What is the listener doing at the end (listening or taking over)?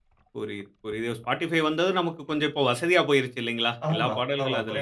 taking over